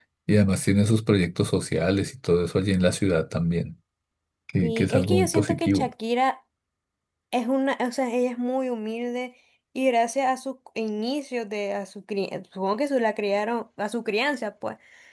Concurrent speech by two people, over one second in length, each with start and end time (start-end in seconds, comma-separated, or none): 4.6-5.9